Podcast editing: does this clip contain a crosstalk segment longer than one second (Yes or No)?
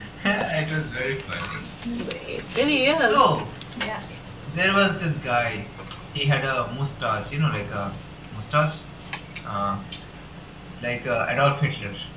No